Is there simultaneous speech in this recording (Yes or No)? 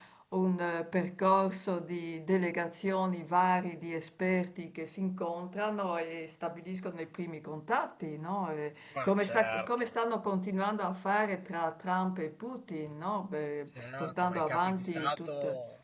Yes